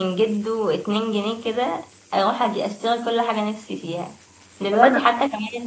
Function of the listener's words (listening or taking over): listening